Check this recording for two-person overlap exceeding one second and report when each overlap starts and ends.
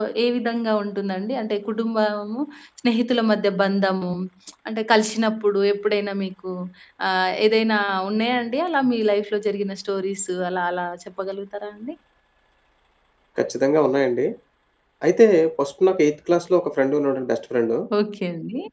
none

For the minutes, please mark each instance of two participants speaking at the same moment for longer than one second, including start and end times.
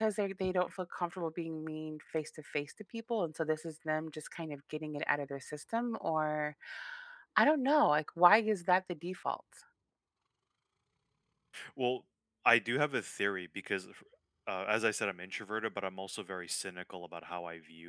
none

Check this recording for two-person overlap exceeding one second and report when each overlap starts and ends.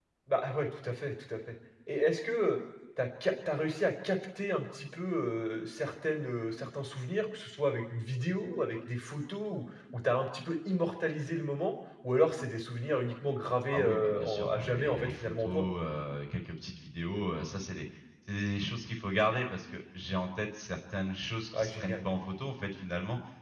13.7-15.6

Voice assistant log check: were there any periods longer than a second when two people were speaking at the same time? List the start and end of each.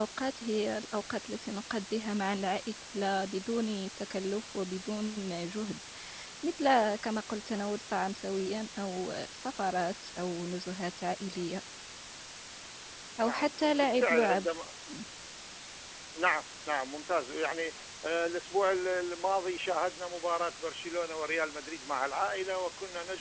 13.2-14.5

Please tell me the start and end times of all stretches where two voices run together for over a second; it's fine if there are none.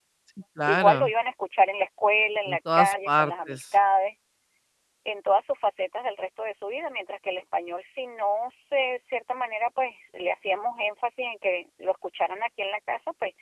2.5-3.7

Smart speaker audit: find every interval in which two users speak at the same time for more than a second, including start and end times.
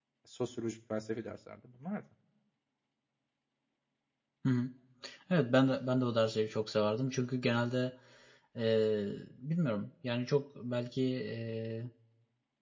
none

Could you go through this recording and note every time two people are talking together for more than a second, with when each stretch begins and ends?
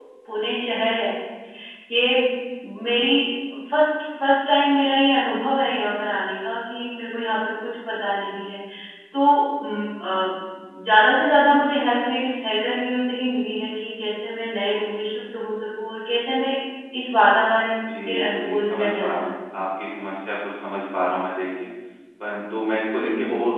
17.9-19.3

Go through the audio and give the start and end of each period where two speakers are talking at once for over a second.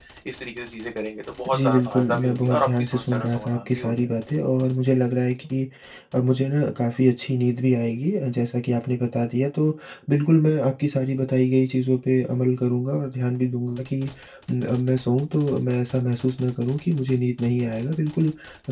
1.5-3.9

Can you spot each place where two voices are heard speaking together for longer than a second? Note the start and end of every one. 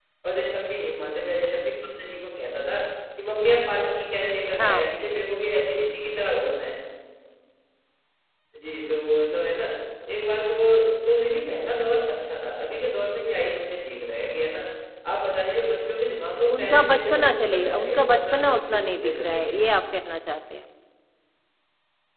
16.6-19.6

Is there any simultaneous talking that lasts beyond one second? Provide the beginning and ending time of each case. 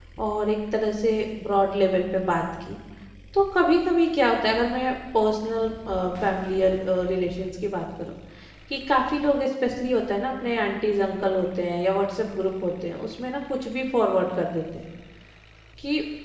none

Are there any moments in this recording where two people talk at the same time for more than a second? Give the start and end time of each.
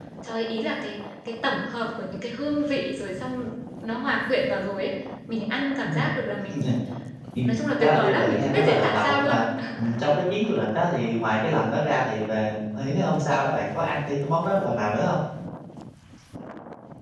7.8-9.4

